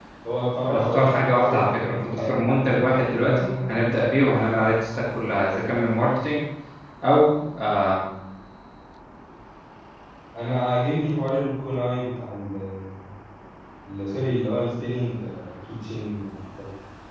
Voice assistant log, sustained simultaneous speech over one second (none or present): present